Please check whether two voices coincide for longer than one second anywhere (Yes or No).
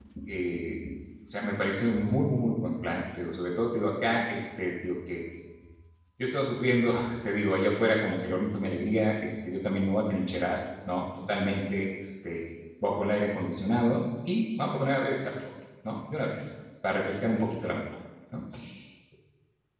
No